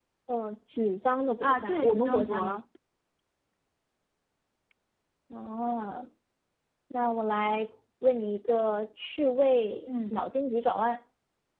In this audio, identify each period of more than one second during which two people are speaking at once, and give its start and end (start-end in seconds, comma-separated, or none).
1.4-2.6